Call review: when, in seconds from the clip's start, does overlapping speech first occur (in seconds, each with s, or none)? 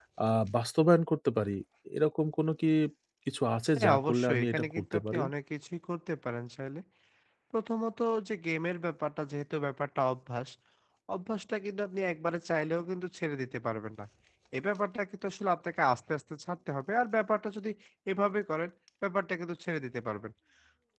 3.8 s